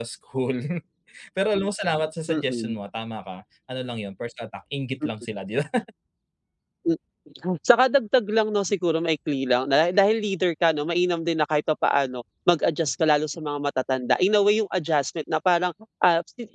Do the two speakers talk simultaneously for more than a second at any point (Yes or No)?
No